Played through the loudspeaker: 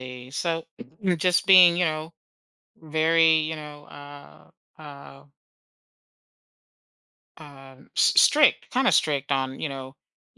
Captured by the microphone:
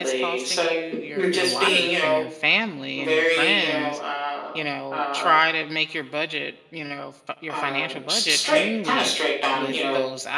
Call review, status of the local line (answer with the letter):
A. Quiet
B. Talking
B